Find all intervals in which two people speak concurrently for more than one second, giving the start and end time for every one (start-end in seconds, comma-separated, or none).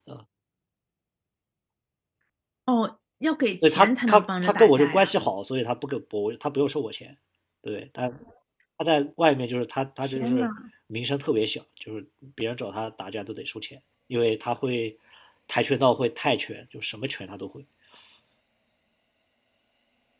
3.6-5.1